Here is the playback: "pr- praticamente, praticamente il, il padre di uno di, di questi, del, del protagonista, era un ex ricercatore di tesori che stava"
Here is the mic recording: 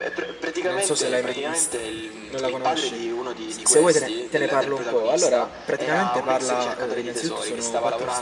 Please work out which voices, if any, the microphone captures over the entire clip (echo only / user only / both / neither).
both